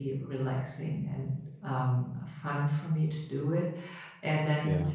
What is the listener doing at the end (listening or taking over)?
listening